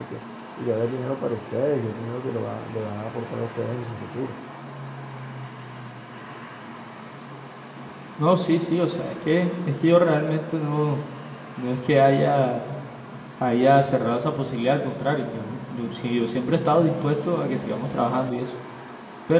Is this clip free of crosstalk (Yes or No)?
Yes